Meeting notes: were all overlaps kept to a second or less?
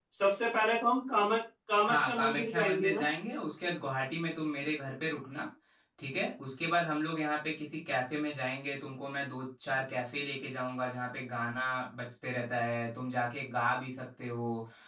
No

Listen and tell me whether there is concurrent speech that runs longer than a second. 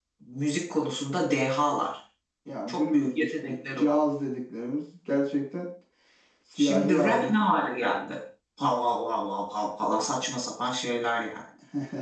Yes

